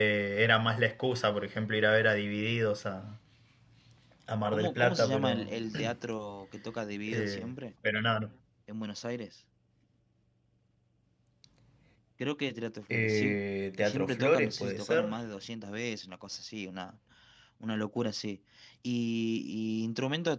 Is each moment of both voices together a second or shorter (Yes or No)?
No